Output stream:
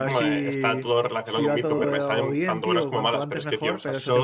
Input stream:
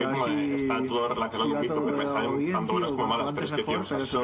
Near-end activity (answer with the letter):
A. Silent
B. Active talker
A